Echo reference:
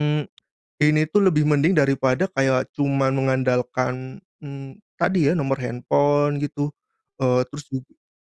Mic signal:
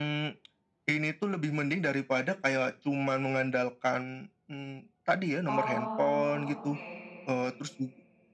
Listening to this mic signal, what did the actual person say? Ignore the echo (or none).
Oh, oke.